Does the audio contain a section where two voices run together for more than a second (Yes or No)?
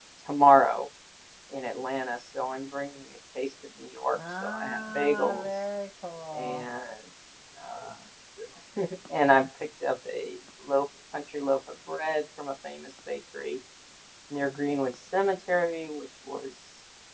Yes